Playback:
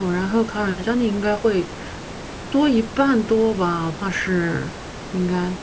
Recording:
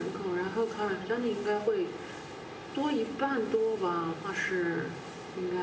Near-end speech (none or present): none